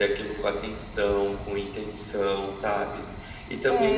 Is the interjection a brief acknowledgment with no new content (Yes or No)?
No